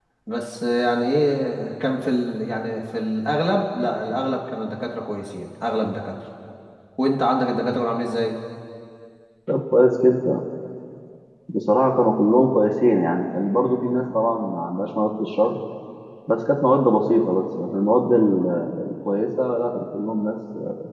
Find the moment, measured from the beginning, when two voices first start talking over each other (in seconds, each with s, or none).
none